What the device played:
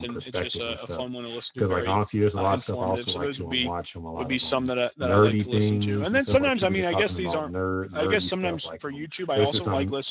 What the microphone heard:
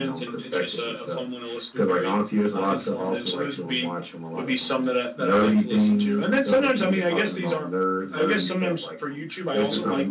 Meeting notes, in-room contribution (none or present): none